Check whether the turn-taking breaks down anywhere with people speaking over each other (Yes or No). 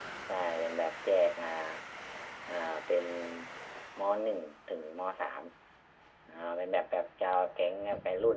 No